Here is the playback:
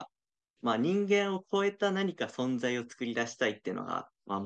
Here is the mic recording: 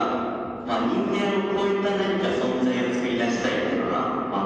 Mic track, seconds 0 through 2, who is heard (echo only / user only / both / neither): echo only